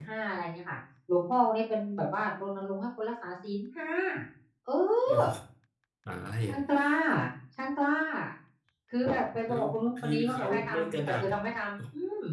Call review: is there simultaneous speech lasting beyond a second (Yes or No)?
Yes